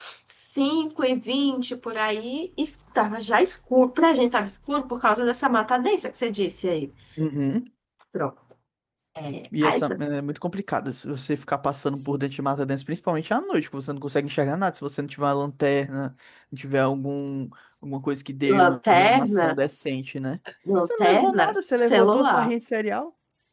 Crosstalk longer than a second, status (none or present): present